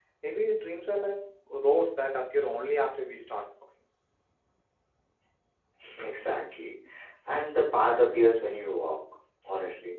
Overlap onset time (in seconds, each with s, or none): none